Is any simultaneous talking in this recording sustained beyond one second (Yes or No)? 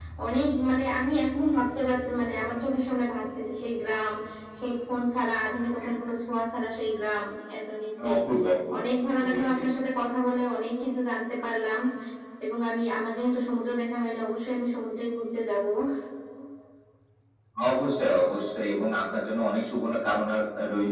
No